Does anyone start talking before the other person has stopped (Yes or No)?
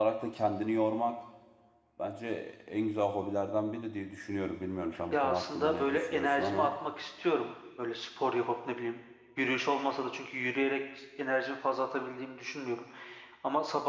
Yes